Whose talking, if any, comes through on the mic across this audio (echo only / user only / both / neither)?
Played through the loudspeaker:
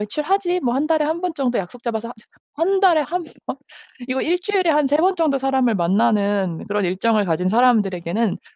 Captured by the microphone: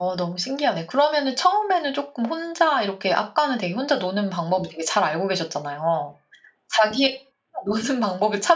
user only